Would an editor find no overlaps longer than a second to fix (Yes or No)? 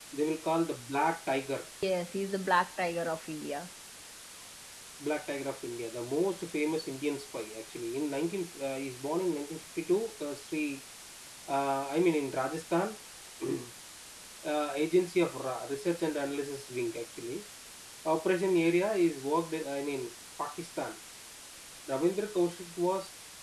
Yes